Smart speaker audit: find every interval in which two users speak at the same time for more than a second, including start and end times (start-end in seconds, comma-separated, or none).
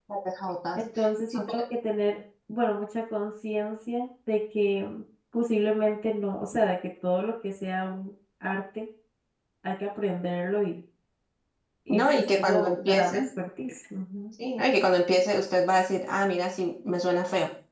11.9-13.2